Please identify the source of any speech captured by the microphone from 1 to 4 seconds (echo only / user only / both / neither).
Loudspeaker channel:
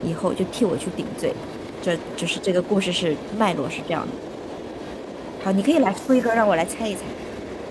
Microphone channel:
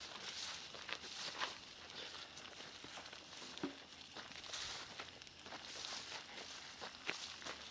neither